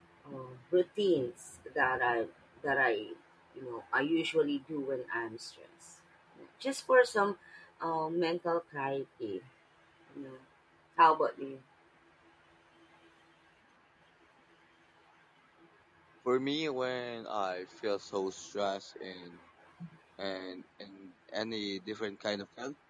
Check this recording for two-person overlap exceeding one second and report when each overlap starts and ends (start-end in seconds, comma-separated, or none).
none